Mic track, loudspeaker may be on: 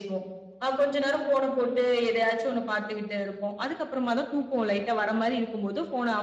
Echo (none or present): present